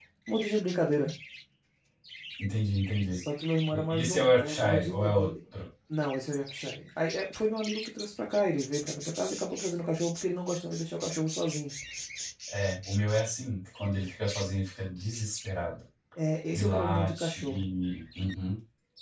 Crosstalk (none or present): present